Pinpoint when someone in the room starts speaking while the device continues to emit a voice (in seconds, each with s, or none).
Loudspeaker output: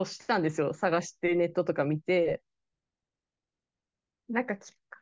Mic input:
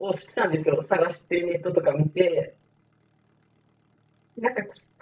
none